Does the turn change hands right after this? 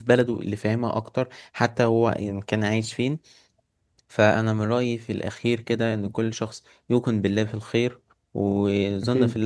No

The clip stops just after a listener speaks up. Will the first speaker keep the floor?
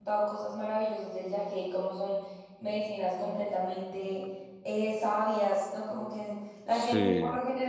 Yes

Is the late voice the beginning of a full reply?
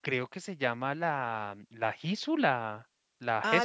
Yes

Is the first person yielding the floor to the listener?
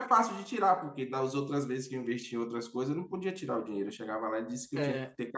No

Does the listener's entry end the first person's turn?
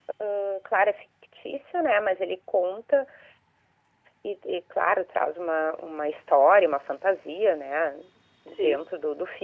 No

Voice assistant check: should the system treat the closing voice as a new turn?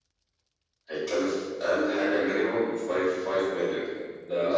Yes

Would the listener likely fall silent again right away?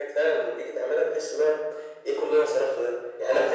Yes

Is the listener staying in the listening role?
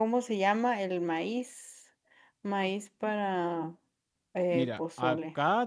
No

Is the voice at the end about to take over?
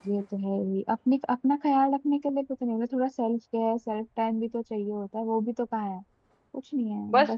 Yes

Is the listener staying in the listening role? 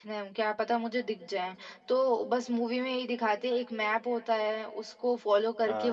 Yes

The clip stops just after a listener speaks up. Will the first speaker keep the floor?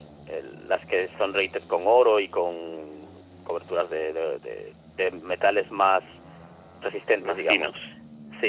Yes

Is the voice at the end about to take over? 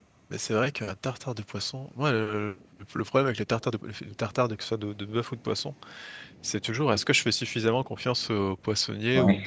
No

